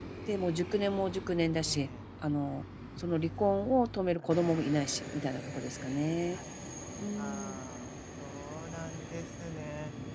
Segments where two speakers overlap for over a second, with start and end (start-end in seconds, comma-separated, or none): none